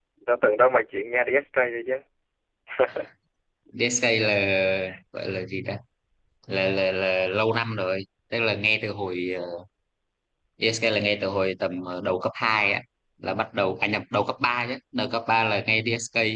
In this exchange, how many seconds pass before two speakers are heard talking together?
none

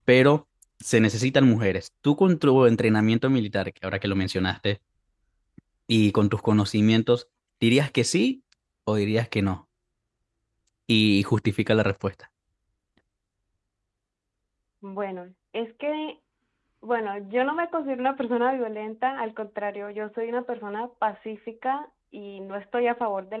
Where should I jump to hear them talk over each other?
none

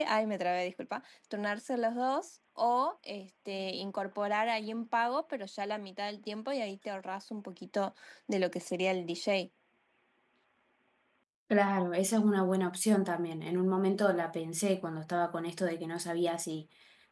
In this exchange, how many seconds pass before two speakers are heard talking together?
none

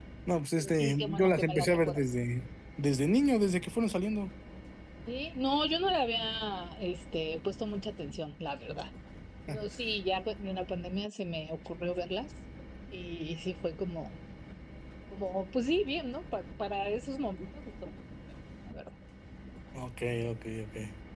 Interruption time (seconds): 0.6 s

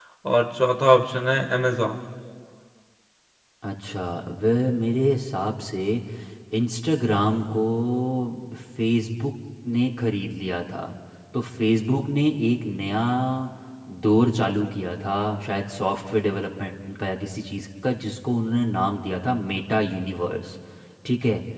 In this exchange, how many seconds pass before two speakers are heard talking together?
none

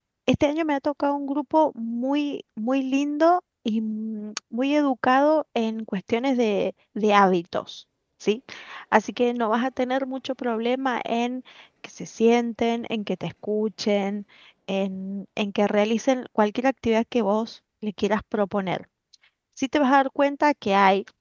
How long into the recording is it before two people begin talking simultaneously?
none

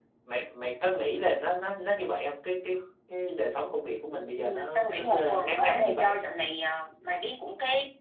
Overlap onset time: 4.3 s

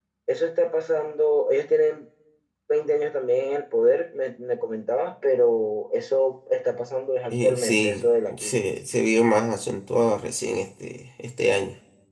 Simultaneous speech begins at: 7.3 s

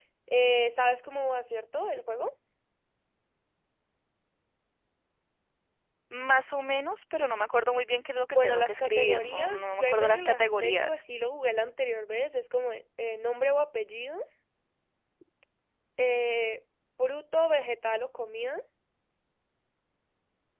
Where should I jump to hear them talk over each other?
8.3 s

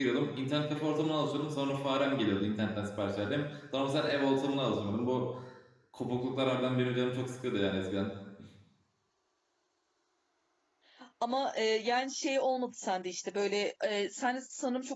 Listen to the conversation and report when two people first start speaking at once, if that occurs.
none

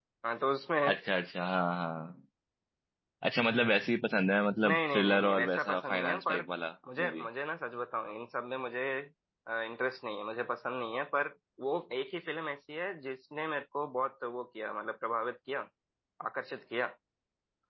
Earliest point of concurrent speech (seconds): 4.7 s

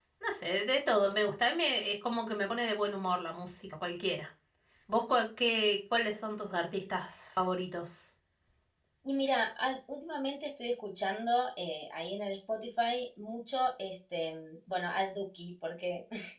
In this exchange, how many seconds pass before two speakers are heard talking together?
none

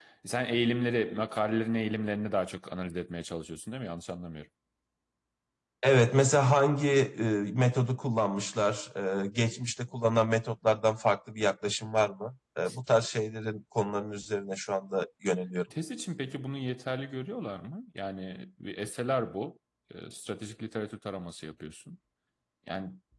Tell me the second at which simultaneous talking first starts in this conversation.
none

